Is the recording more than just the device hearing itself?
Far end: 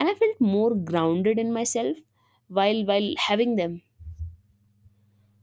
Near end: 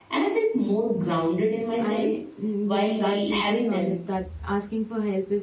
Yes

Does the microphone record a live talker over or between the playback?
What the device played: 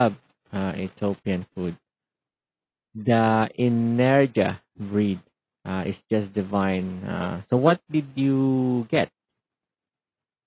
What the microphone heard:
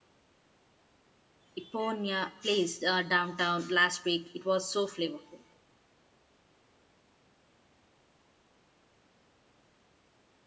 Yes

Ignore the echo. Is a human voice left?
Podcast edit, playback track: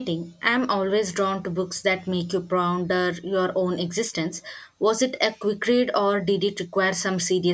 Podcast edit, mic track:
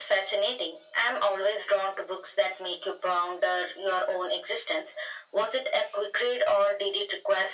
No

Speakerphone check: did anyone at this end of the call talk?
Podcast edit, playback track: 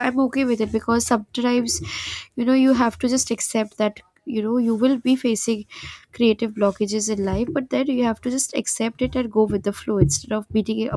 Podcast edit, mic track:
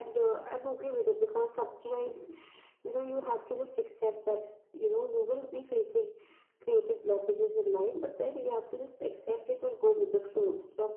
No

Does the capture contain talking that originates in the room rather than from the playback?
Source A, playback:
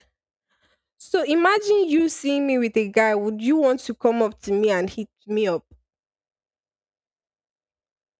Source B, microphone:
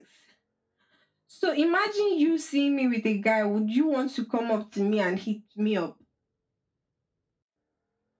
No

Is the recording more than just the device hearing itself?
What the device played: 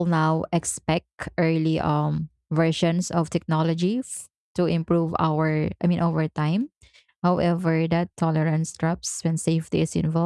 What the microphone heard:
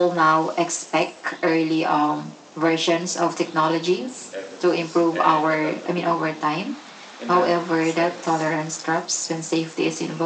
Yes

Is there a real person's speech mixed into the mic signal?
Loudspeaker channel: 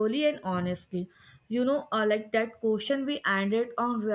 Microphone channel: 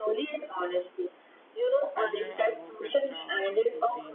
Yes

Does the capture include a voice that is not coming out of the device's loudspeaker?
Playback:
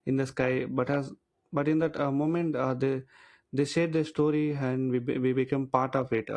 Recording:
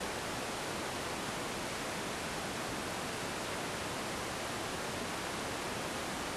No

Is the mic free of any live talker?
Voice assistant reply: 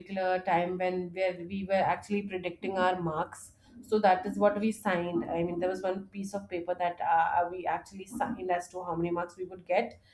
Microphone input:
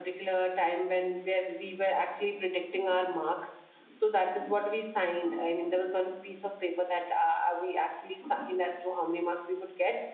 Yes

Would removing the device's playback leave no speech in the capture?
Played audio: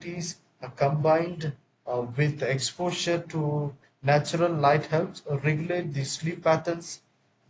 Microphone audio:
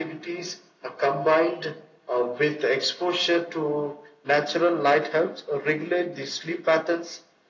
Yes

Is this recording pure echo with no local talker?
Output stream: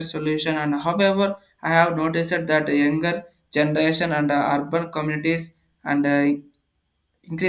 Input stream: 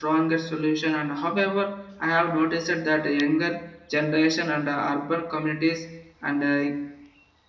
Yes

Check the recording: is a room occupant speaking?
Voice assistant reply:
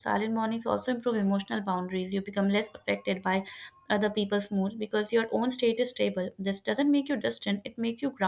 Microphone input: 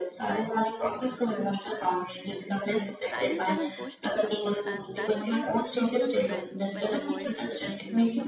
Yes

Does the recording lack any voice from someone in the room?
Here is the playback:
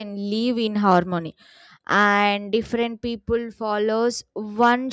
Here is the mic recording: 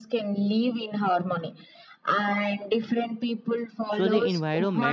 No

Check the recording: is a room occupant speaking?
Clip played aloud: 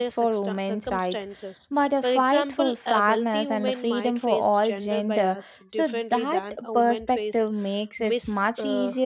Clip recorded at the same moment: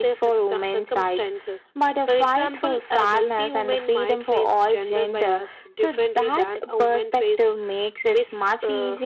No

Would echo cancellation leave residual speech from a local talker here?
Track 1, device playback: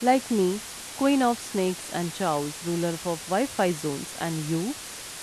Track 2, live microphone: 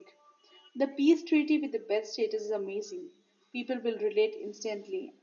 Yes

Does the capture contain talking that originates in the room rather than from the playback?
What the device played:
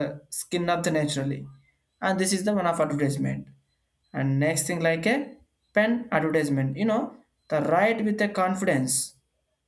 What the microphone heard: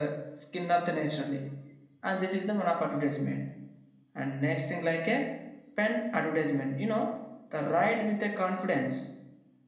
No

